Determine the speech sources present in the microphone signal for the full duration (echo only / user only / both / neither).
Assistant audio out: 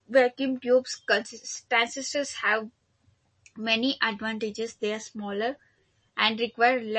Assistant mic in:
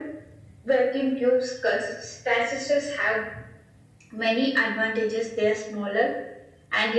echo only